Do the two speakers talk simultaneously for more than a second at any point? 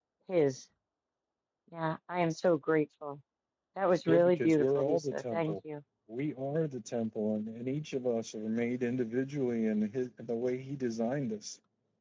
Yes, from 4.1 s

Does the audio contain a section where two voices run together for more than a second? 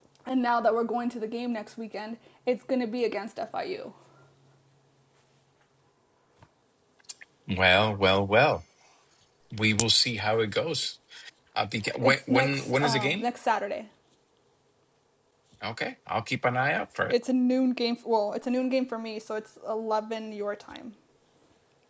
Yes, from 12.0 s

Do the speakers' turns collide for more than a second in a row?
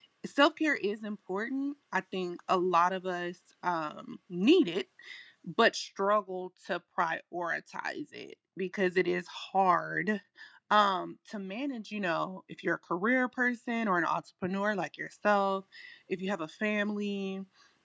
No

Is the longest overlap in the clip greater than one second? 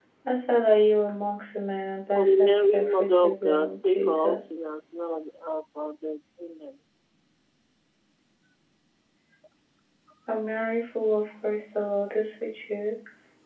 Yes, from 2.1 s

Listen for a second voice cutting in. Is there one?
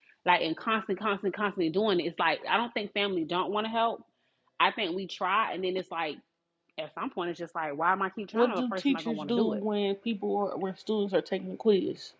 Yes, from 8.3 s

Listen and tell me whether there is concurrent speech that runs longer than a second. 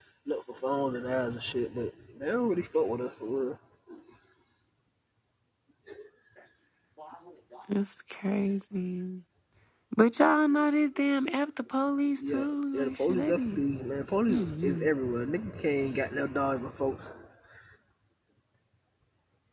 Yes, from 12.3 s

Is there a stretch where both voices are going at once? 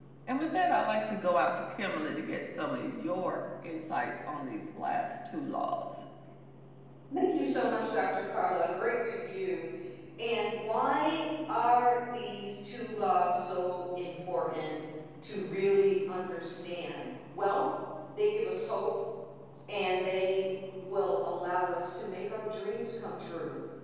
No

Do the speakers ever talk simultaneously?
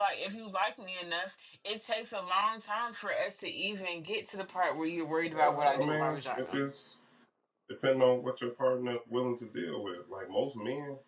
Yes, from 5.4 s

